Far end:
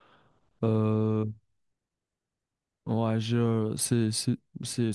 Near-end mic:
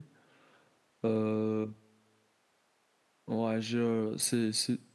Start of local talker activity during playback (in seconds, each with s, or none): none